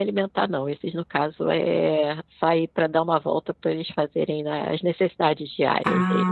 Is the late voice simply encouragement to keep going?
No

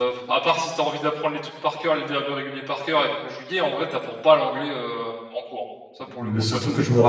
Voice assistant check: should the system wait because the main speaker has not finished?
No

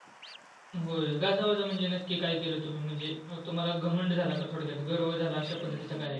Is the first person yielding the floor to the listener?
Yes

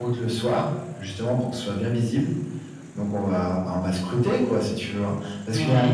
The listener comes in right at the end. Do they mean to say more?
Yes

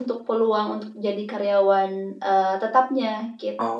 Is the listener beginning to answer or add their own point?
Yes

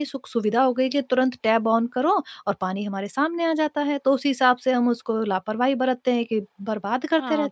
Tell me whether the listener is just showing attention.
No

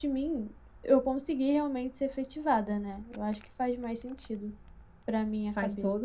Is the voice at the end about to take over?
Yes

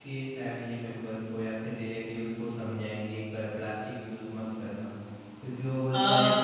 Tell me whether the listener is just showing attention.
Yes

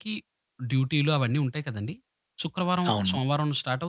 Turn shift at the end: No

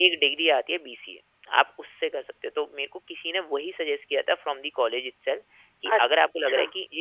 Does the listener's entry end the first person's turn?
No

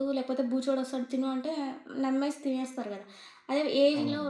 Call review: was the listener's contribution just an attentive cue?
Yes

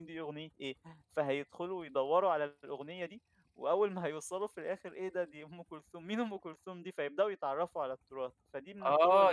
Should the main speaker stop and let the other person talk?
Yes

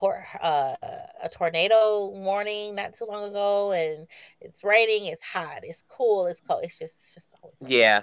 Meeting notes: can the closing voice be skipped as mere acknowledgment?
No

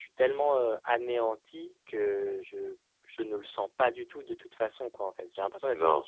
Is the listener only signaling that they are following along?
Yes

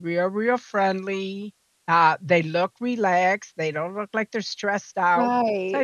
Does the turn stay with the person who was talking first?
Yes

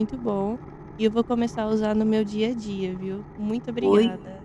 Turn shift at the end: Yes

